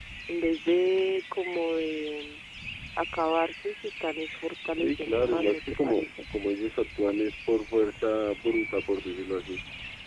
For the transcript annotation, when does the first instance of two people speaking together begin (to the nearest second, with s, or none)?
5 s